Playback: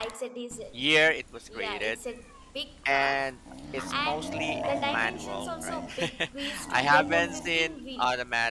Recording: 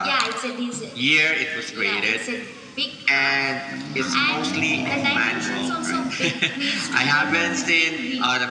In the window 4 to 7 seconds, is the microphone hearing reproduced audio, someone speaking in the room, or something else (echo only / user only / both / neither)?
echo only